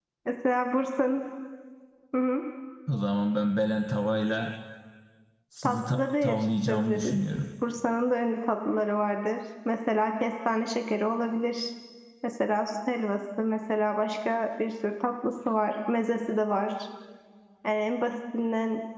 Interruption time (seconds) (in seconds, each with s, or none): 5.6 s